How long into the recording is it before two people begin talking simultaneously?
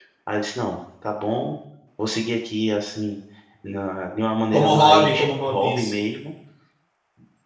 4.5 s

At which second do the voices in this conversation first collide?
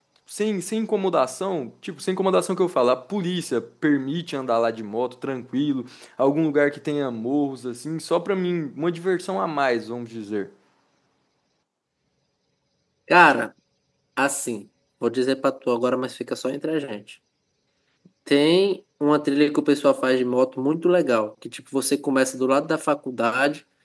none

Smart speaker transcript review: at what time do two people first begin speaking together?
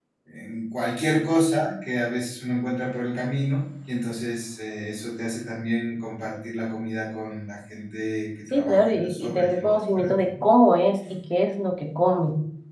8.5 s

